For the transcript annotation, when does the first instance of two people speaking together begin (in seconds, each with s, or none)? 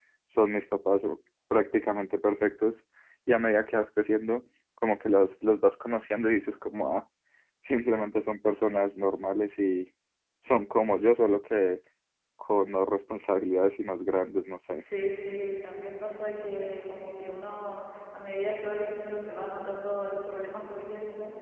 none